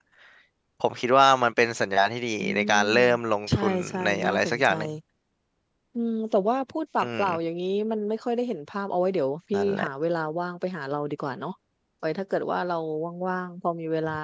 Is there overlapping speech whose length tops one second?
Yes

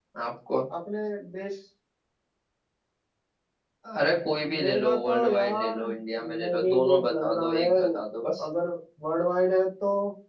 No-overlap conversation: No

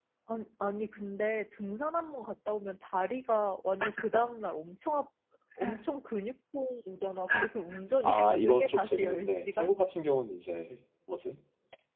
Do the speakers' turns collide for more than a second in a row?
Yes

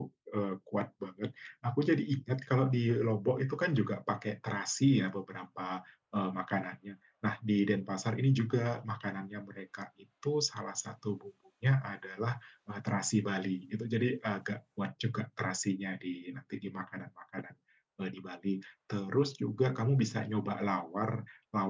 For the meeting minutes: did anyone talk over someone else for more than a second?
No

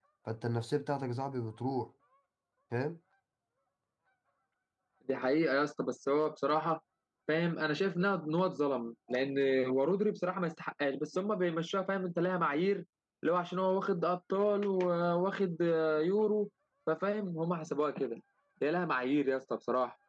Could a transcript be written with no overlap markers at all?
Yes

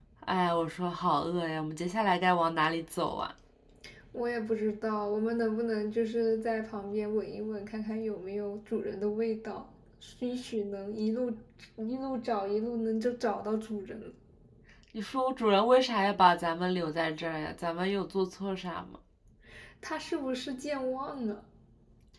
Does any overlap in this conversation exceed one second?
No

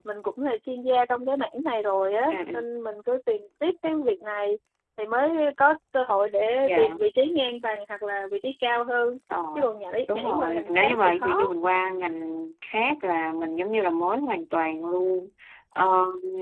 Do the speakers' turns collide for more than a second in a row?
Yes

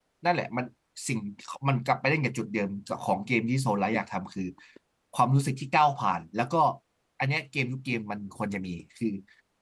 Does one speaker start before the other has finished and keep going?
No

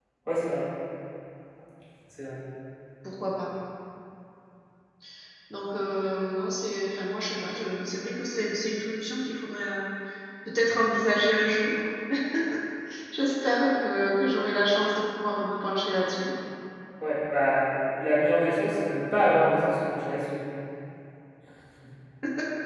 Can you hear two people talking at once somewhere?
No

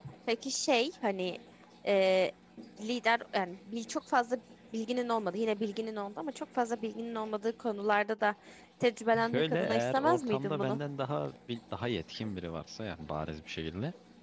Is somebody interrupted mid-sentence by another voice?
Yes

